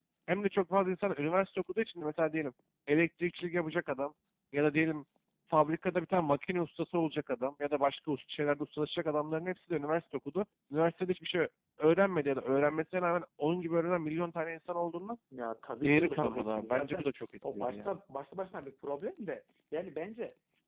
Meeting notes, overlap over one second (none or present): present